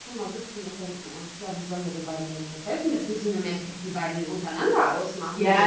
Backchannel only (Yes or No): No